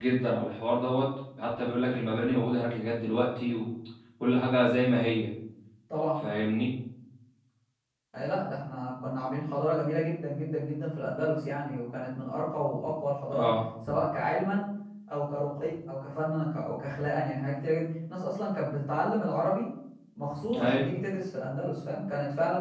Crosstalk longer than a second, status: none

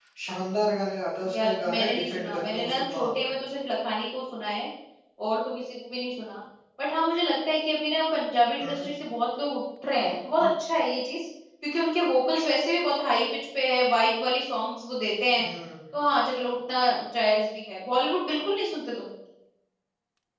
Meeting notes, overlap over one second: present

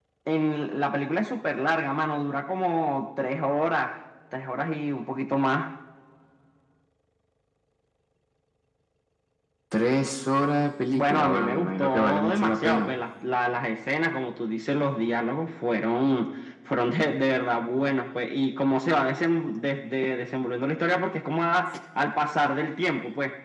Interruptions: present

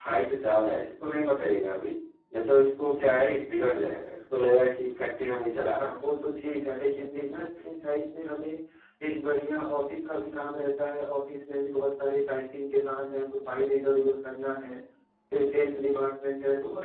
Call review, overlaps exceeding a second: none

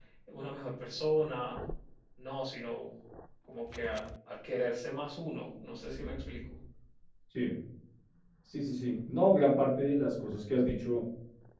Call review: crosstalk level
none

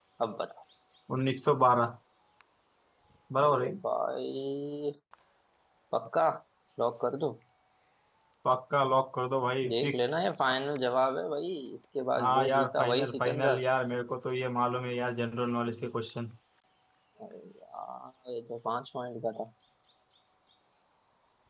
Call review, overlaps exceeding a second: present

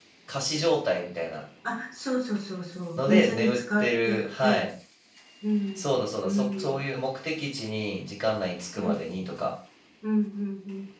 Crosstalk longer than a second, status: present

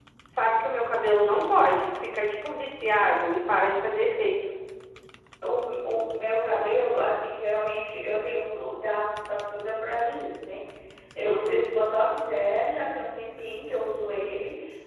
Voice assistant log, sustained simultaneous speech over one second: none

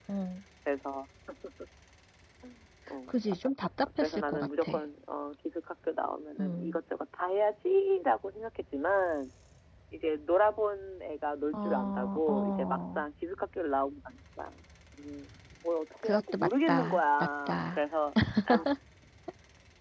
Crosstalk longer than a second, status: present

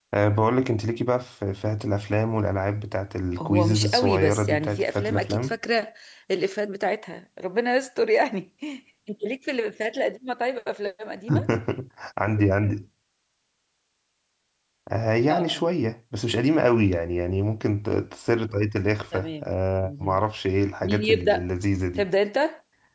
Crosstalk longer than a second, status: present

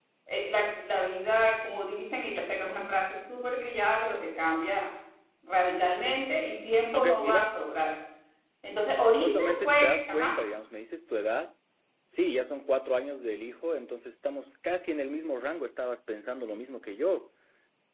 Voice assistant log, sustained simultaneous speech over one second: present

